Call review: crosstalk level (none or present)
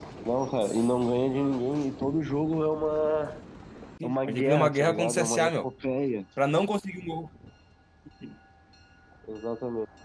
present